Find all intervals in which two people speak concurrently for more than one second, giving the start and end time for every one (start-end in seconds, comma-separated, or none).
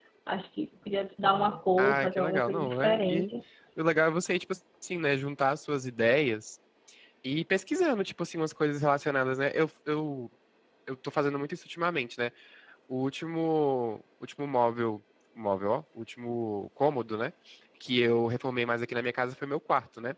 1.8-3.2